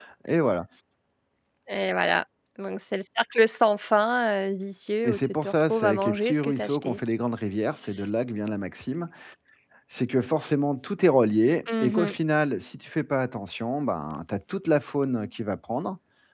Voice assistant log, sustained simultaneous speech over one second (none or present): present